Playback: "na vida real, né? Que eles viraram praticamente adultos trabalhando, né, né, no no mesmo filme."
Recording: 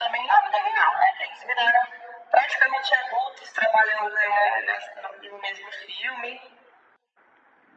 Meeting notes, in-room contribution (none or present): none